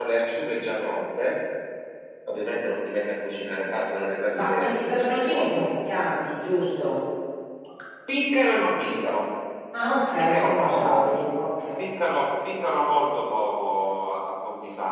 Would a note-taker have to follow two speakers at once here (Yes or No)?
Yes